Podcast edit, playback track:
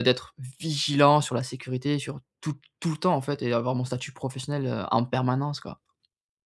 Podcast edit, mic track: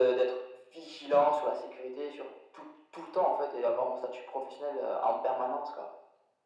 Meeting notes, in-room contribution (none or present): none